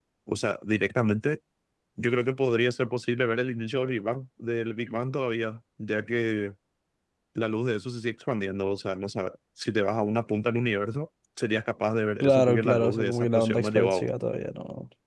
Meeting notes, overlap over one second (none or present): present